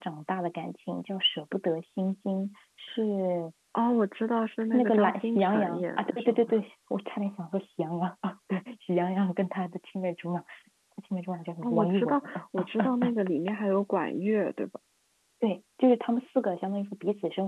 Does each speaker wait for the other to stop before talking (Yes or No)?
No